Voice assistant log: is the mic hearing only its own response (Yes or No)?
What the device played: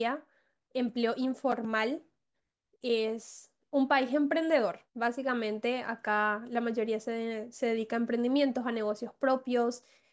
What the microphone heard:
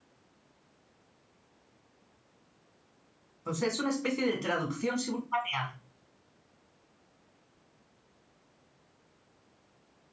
No